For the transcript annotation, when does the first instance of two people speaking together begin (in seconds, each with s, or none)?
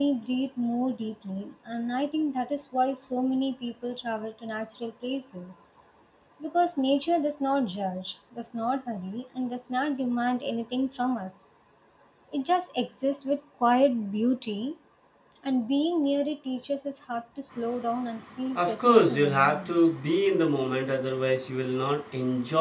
18.6 s